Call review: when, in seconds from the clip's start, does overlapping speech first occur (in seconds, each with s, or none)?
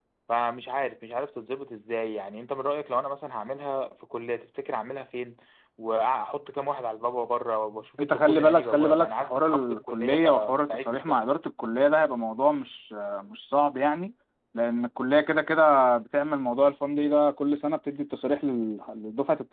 8.0 s